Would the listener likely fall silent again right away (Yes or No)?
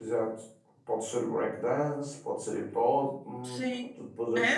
No